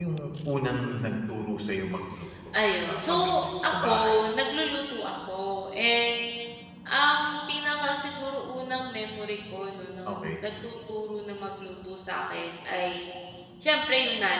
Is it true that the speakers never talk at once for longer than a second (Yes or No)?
No